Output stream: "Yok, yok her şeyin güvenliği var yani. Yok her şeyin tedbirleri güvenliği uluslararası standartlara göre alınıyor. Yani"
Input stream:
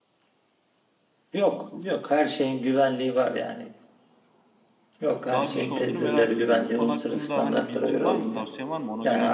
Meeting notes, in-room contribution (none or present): present